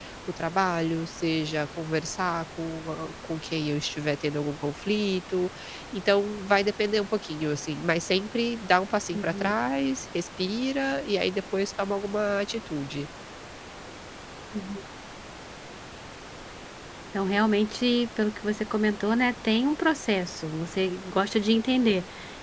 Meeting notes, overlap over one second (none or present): none